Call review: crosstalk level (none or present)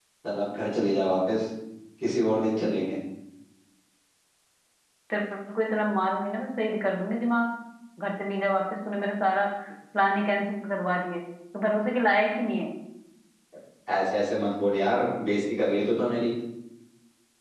none